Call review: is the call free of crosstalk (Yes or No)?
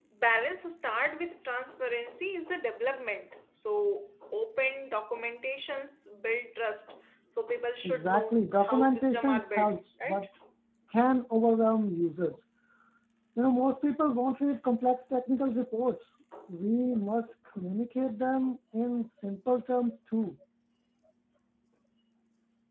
No